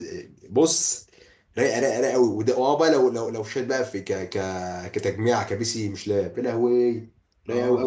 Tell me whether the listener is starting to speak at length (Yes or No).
Yes